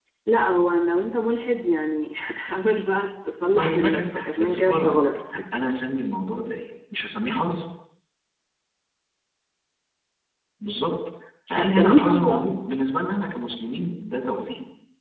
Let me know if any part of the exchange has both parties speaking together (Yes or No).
Yes